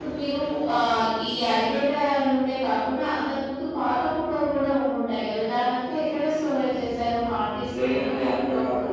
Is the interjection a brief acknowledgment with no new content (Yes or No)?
No